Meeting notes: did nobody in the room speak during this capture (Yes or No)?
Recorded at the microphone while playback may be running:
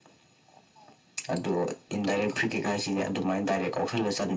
No